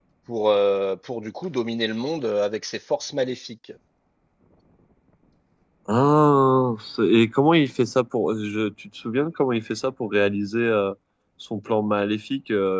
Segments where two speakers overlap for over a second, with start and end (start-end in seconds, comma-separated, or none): none